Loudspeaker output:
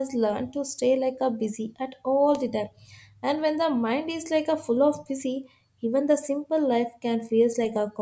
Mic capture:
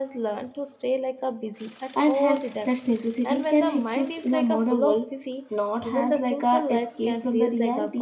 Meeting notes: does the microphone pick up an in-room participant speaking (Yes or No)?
Yes